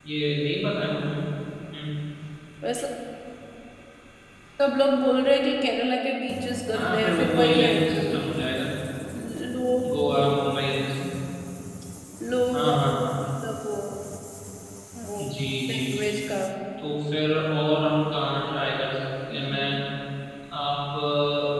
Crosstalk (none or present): present